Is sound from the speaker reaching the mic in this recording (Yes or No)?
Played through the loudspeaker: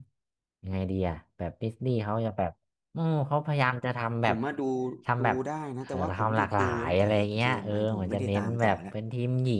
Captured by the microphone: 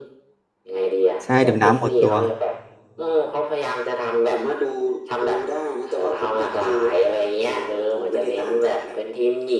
Yes